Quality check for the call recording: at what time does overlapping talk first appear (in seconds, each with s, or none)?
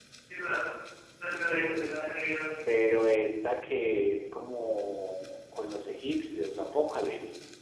none